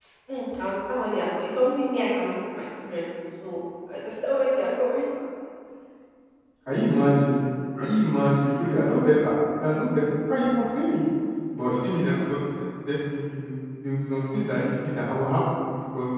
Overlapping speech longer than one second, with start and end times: none

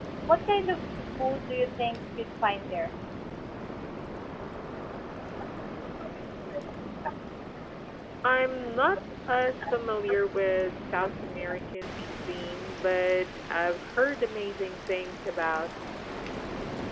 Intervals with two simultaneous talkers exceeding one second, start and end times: none

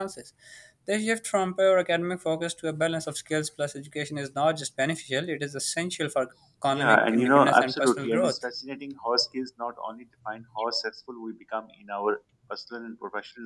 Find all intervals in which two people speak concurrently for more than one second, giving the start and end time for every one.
6.7-8.3

